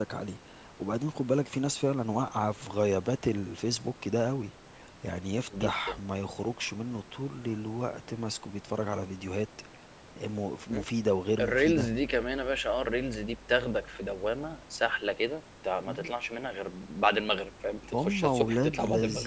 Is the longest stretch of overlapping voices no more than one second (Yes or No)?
No